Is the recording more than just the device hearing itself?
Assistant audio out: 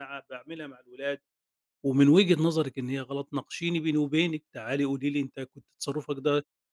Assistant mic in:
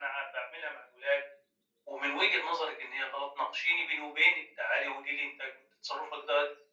No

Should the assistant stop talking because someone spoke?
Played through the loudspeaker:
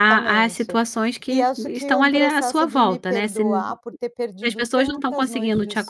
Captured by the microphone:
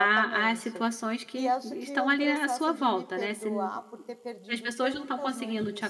No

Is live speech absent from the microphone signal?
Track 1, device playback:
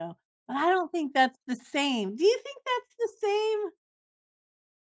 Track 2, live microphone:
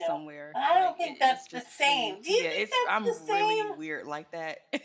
No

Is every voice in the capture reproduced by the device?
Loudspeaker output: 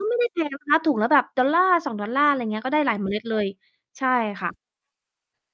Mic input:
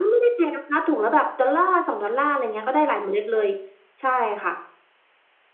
Yes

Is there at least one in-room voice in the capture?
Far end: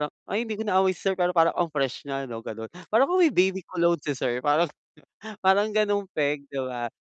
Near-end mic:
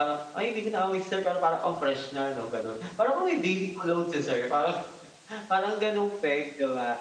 No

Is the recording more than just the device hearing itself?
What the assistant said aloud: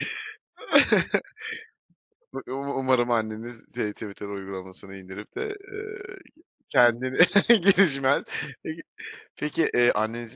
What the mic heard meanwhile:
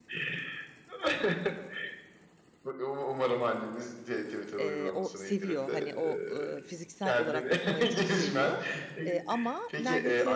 Yes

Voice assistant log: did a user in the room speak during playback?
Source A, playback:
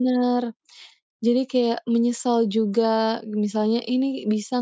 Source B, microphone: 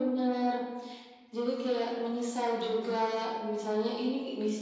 No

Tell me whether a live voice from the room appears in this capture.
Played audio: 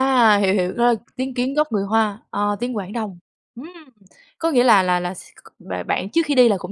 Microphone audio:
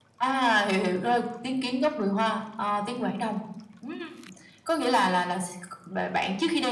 No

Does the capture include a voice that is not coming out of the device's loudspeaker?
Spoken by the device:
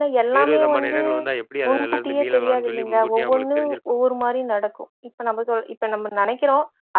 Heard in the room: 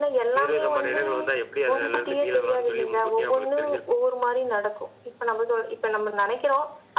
No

